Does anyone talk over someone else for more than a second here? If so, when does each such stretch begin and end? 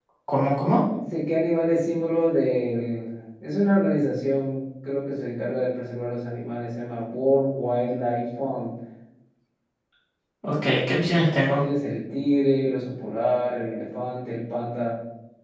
none

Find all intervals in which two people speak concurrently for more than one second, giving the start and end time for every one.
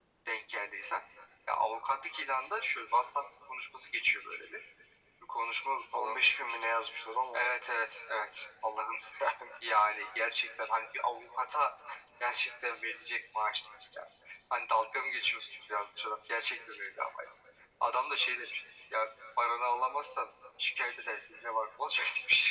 none

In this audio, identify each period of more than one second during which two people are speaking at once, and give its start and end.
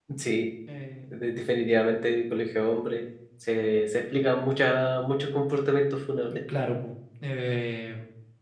none

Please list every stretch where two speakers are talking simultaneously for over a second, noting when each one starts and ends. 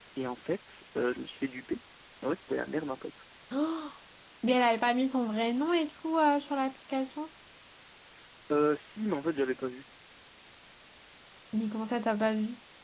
none

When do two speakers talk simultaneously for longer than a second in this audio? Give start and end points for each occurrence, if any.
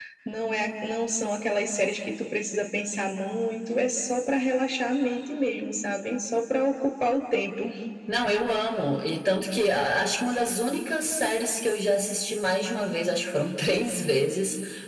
none

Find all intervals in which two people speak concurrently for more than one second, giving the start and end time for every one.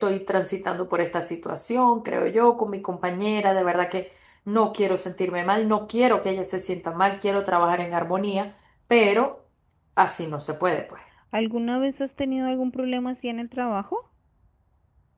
none

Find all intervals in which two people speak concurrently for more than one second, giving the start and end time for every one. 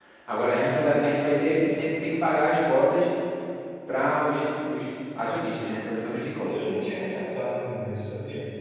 none

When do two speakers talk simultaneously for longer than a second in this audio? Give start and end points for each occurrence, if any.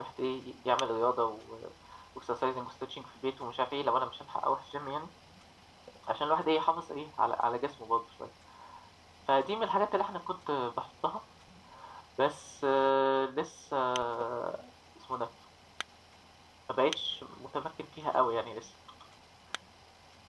none

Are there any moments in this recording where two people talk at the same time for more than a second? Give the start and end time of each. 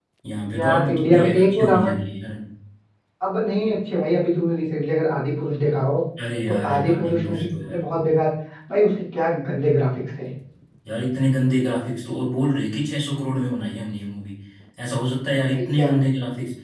0.5-2.0, 6.5-7.8

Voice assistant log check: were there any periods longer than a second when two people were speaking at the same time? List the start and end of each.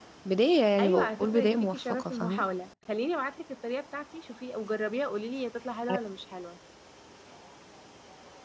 0.8-2.4

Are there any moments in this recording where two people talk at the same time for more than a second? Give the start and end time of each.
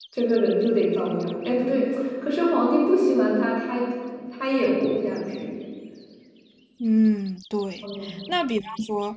none

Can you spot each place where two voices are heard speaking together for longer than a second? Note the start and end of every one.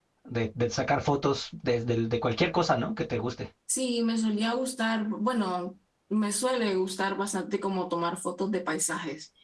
none

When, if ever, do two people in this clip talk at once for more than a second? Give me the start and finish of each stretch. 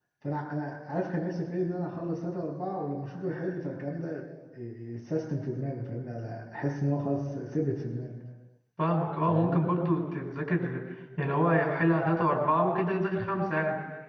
none

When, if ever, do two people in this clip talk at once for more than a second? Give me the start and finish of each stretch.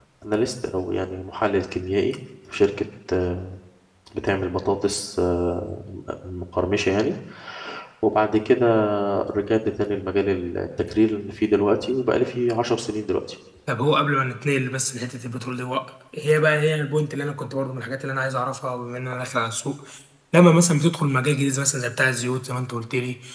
none

